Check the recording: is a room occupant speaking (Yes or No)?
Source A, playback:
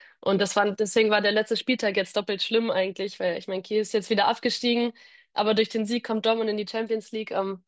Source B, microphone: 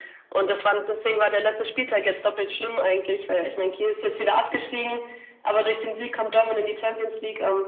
No